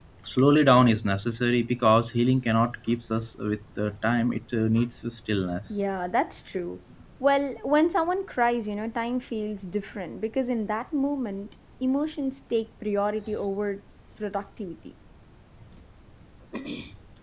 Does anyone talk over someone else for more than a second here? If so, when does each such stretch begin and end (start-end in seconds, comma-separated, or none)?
none